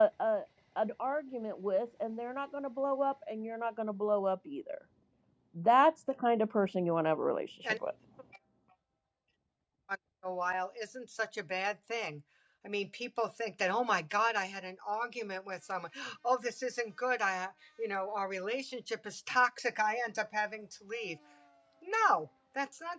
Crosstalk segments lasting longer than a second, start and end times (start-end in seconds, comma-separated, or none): none